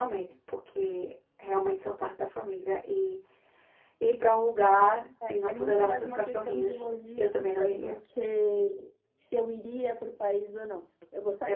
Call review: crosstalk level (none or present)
present